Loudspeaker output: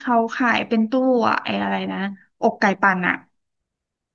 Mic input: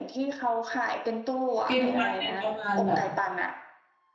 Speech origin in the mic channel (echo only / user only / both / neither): both